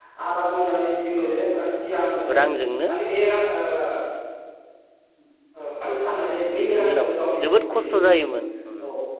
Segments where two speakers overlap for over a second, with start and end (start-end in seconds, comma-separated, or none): 6.6-8.3